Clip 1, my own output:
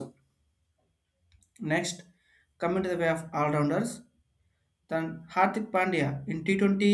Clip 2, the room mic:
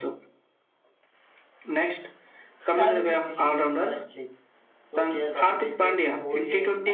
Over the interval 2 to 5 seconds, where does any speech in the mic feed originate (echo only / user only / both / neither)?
both